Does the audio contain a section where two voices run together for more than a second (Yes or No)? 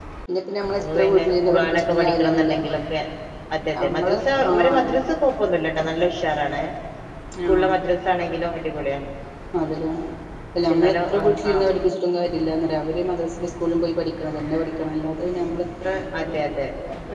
Yes